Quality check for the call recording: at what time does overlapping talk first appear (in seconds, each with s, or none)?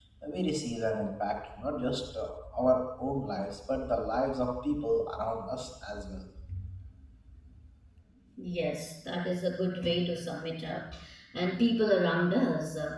none